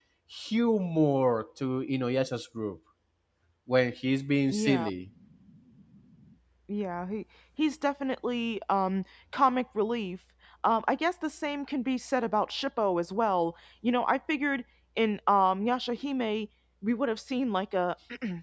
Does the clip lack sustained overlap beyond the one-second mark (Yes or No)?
Yes